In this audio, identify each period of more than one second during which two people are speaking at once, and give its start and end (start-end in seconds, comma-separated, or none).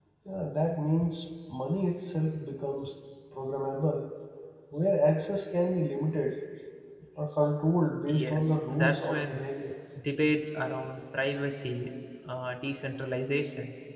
8.1-9.5